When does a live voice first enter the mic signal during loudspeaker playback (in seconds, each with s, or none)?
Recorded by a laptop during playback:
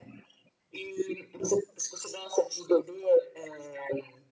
none